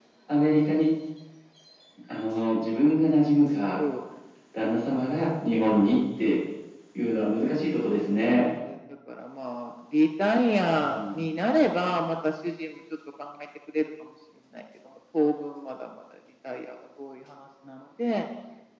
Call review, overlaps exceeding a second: none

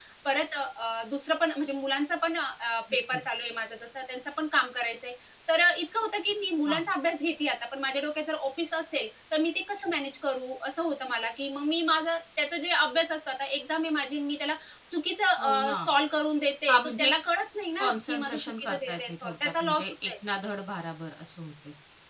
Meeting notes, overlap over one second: present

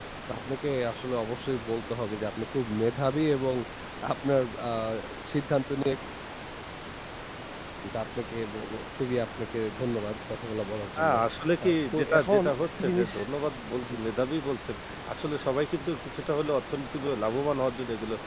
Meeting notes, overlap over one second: present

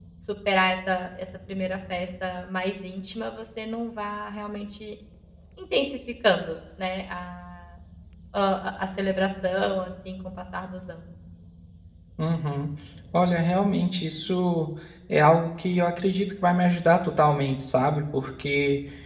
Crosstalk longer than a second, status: none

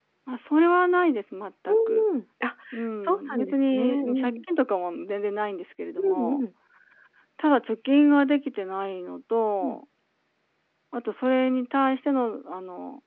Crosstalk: present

